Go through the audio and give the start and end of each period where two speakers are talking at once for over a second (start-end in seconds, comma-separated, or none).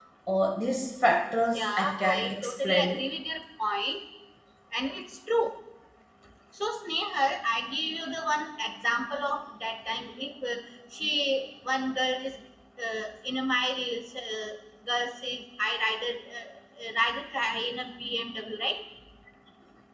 1.5-3.0